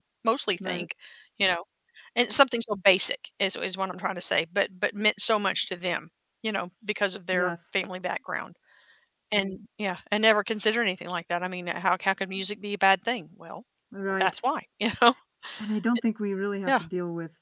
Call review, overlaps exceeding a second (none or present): none